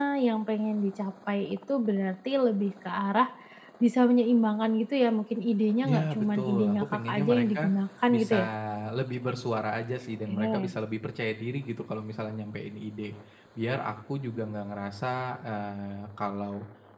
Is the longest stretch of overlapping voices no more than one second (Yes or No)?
No